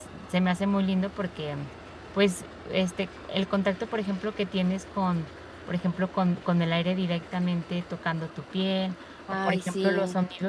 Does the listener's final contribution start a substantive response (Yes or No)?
No